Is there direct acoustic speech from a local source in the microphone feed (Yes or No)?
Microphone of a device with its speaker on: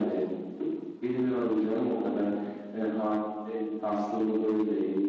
No